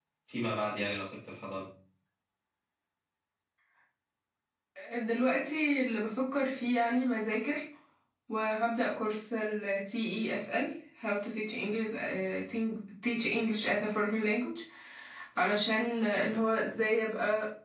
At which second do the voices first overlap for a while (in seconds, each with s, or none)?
none